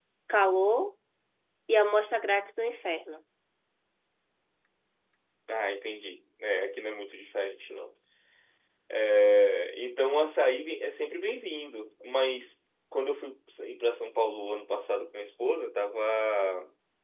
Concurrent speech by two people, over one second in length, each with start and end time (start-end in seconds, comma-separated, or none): none